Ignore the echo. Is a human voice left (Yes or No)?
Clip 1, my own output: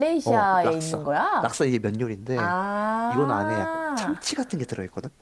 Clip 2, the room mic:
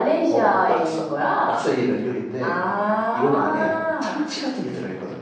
No